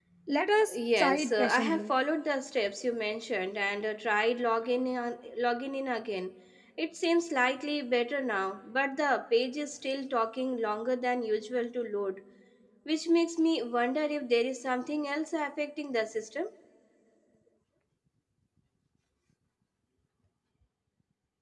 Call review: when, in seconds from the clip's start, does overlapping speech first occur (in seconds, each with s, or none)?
0.7 s